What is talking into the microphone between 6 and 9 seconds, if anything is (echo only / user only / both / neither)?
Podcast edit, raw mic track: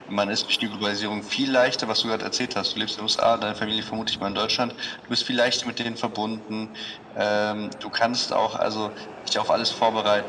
echo only